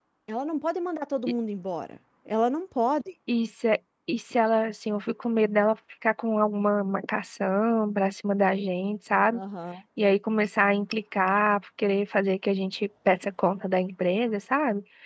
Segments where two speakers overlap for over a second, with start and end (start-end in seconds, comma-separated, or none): none